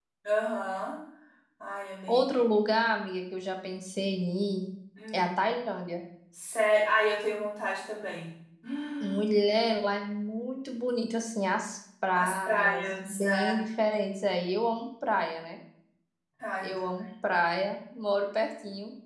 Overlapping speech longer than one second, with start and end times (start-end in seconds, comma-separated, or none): 12.2-13.6